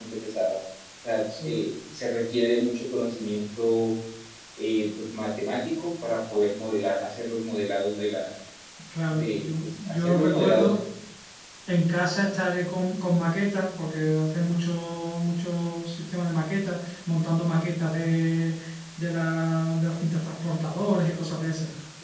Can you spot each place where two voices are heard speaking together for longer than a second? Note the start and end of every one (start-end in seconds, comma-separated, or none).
9.1-10.8